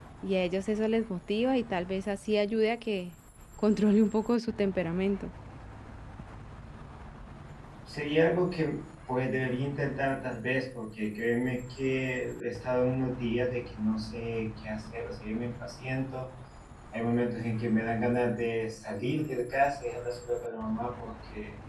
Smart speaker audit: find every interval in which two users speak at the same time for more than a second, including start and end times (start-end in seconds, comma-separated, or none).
none